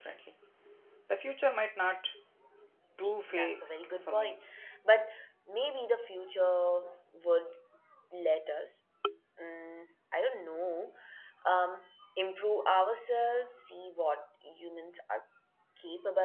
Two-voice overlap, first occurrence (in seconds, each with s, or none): 3.0 s